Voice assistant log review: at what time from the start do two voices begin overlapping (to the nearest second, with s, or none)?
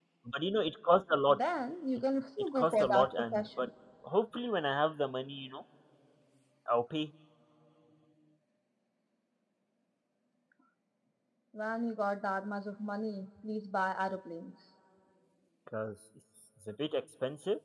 2 s